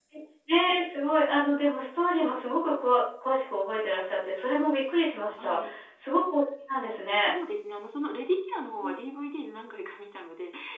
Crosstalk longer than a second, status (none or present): none